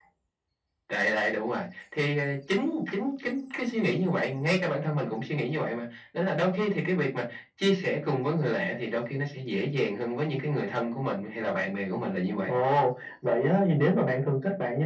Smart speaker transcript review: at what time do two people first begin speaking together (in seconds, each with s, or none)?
none